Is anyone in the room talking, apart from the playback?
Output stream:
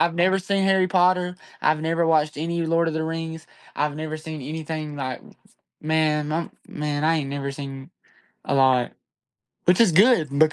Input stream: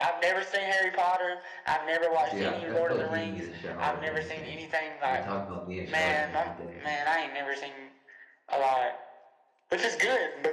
Yes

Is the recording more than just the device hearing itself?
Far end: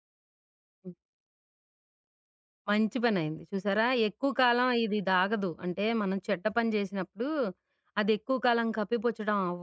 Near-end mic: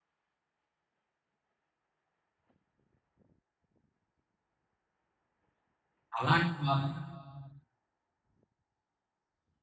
Yes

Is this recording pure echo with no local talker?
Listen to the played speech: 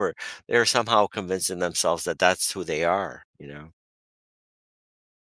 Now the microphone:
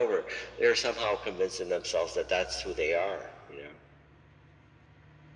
Yes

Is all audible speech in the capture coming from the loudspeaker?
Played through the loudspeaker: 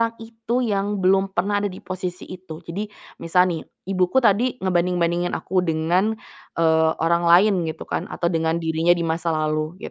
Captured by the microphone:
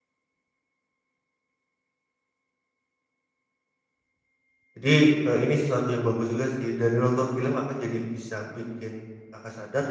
No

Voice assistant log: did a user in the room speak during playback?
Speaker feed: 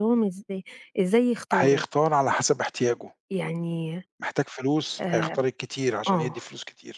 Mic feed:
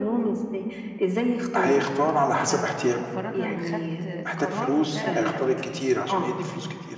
Yes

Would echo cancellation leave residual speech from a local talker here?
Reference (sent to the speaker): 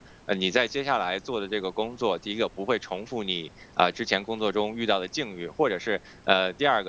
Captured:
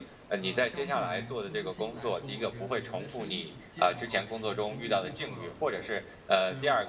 Yes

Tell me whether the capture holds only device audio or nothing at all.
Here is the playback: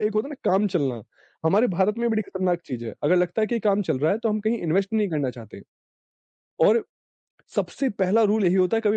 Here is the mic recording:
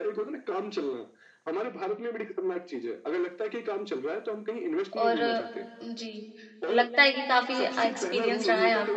No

